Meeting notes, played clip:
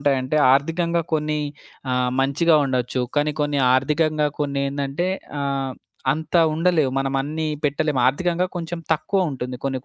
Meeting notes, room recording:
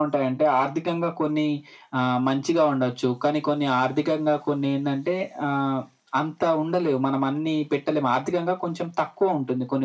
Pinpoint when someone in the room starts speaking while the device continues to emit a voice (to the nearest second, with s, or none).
none